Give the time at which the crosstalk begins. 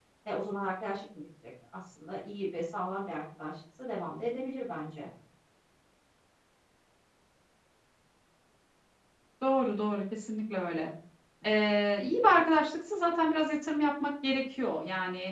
none

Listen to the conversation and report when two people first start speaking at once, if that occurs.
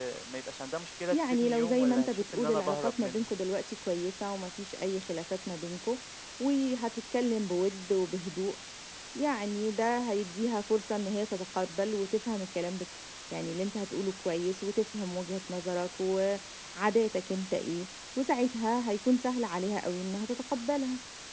1 s

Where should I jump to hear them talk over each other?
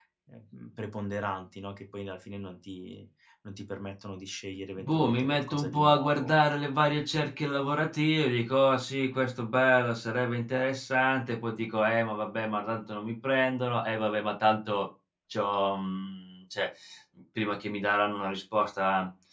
5 s

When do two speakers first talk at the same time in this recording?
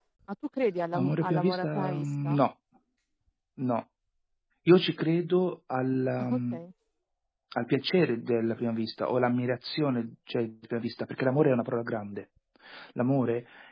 1 s

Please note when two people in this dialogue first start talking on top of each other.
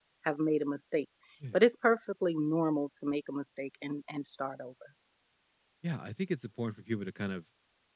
none

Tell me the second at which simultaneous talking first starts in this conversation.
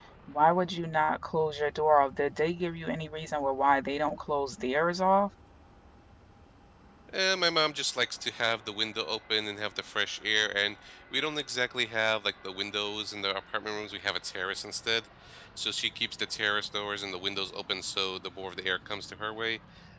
none

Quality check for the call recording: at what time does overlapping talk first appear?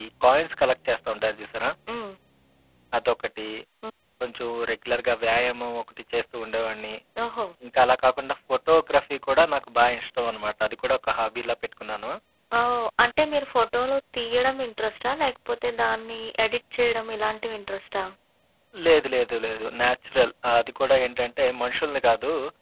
none

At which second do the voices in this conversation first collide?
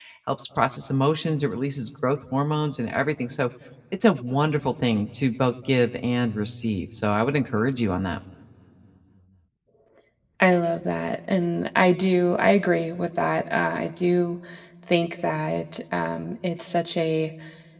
none

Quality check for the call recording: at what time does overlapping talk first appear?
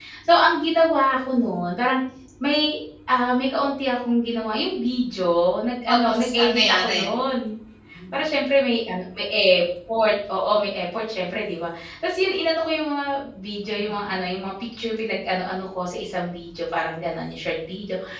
6 s

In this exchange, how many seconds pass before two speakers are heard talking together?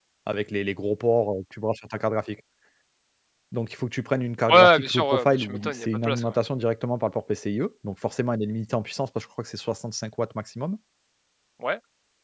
4 s

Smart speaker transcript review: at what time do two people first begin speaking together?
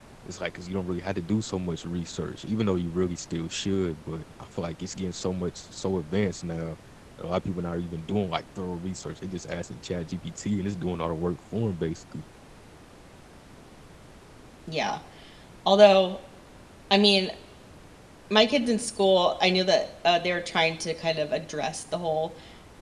none

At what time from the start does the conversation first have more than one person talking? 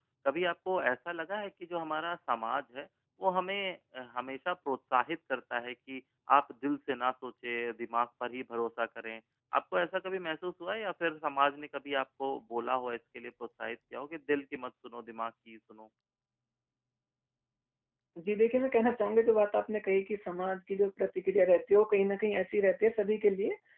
none

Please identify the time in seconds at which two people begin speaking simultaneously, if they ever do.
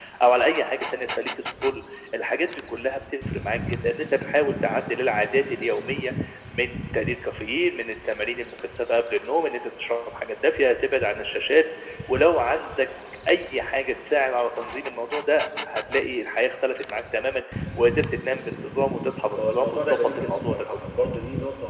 19 s

